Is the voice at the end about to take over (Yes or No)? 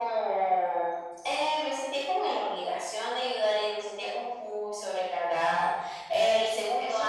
Yes